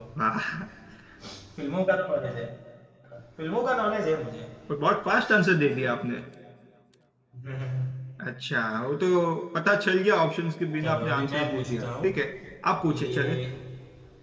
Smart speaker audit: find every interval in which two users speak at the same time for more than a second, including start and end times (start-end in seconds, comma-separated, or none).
10.8-12.1